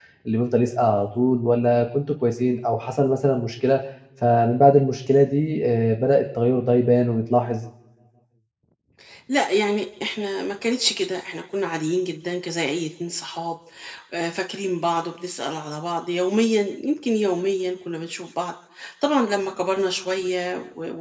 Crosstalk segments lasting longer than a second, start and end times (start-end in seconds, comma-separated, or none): none